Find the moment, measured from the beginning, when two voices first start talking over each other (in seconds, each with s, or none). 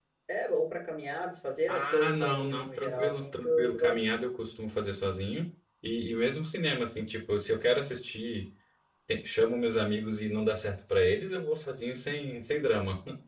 1.6 s